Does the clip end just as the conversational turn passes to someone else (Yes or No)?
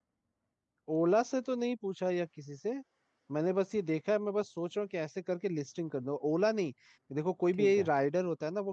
No